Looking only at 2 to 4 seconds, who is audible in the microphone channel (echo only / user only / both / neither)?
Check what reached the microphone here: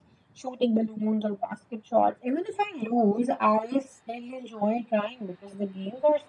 echo only